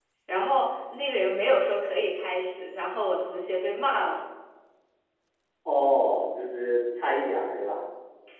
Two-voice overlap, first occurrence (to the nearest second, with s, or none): none